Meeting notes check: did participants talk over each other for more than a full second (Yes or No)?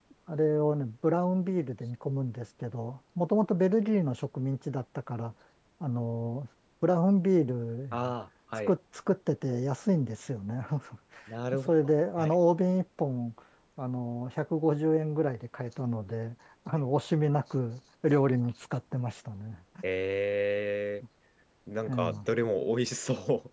No